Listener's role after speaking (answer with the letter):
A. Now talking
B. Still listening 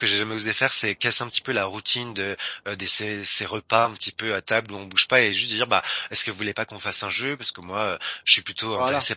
B